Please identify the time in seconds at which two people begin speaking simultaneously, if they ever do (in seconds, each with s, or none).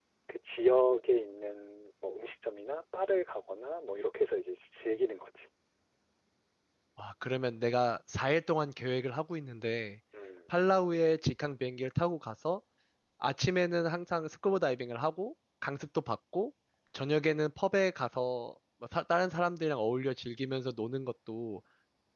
none